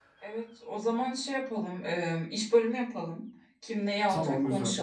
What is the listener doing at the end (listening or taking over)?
listening